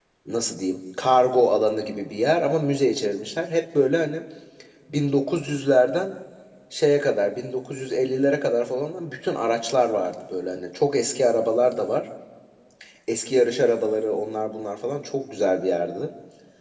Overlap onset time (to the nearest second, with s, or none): none